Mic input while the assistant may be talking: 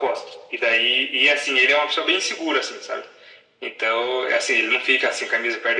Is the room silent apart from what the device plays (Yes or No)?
Yes